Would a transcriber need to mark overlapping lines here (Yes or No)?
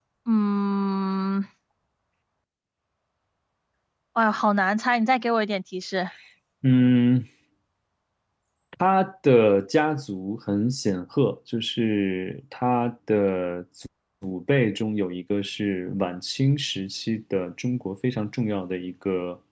No